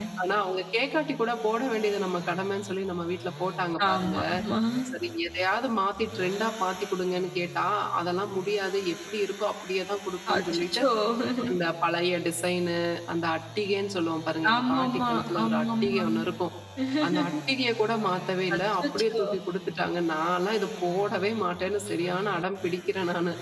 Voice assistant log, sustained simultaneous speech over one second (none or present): present